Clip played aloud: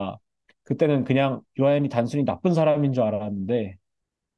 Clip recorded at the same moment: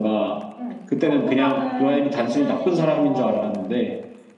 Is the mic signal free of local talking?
No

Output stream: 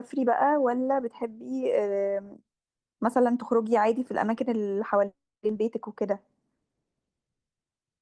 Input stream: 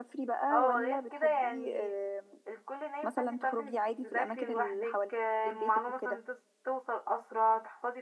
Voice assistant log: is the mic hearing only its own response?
No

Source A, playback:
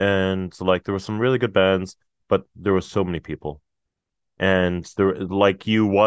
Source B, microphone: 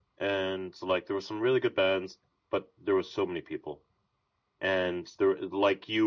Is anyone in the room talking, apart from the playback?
No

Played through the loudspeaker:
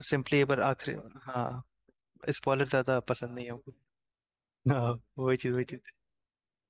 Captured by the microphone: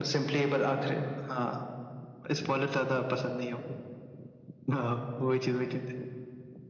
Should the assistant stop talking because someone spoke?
No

